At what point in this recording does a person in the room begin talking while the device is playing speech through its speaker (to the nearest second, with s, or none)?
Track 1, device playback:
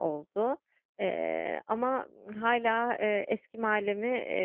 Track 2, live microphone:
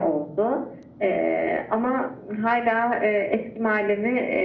none